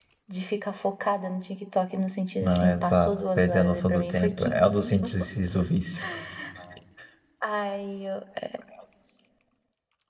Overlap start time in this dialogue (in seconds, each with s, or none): 2.4 s